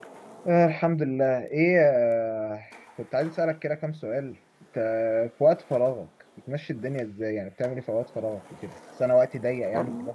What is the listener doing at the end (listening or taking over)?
listening